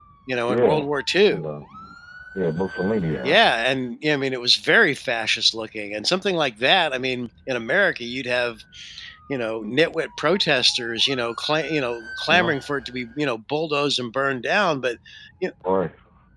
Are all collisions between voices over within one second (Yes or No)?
Yes